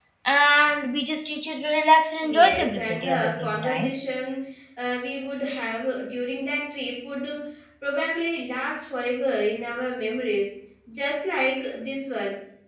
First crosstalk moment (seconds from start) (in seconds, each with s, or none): 2.2 s